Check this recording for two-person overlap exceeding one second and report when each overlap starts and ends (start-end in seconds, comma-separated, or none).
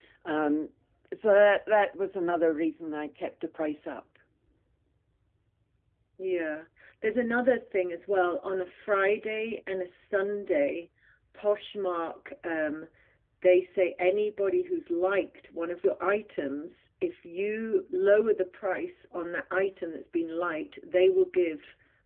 none